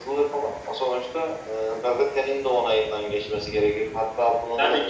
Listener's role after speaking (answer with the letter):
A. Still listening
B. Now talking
A